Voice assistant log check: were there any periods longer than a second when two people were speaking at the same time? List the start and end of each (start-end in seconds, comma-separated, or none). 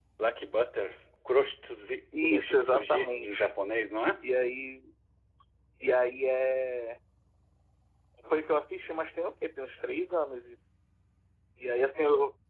2.2-3.5